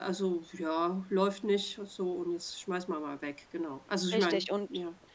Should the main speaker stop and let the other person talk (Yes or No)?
Yes